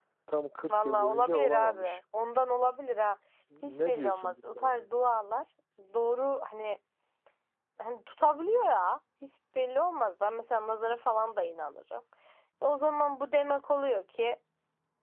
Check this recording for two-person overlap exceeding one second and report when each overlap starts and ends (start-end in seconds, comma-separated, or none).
0.7-2.0, 3.6-4.8